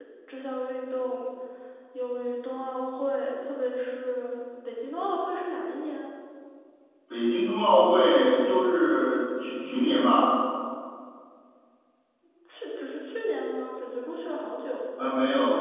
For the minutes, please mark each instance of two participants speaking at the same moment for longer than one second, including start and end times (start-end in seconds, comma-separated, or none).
none